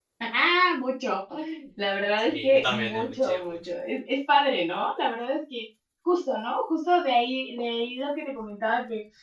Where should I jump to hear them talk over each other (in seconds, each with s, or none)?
2.3 s